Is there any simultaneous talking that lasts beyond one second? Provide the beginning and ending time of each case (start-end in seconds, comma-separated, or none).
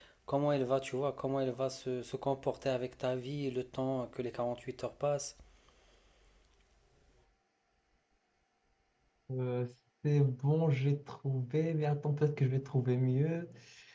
none